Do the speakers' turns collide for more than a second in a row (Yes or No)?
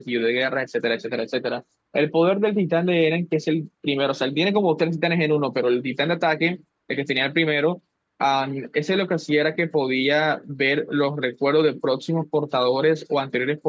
No